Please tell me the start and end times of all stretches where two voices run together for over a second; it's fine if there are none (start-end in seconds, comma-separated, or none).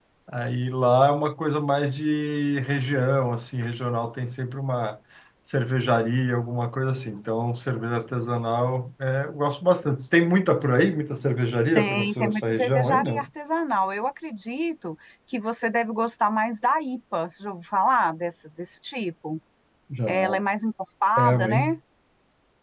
11.8-13.2